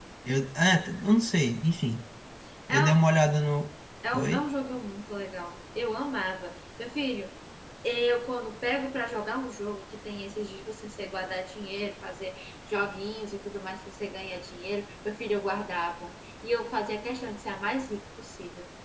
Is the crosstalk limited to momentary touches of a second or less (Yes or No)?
Yes